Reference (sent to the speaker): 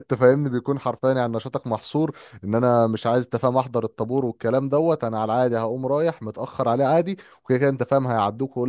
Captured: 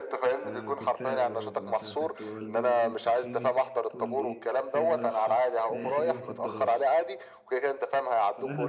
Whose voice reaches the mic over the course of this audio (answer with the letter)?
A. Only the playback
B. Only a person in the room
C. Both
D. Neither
C